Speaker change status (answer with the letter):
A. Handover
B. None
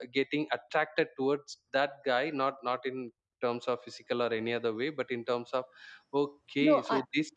B